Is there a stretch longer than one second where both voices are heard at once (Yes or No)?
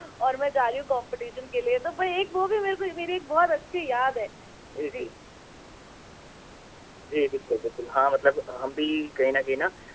No